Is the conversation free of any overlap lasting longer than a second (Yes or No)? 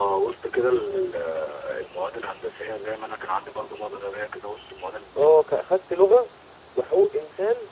Yes